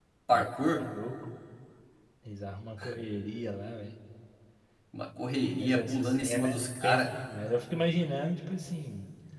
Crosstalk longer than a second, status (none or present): present